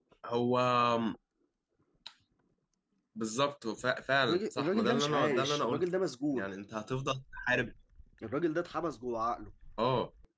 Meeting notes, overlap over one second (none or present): present